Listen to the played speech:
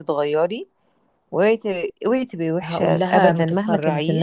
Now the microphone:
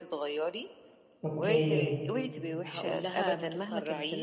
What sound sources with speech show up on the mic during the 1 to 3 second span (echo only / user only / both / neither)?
both